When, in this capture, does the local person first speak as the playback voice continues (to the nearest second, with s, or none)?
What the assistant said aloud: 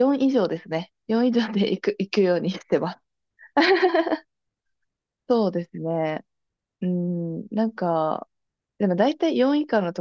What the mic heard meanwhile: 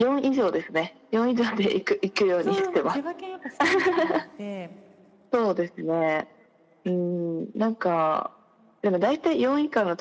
2 s